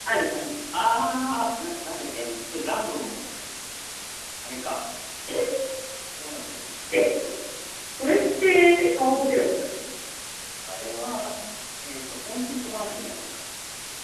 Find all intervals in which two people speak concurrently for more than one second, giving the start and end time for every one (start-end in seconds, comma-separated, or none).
none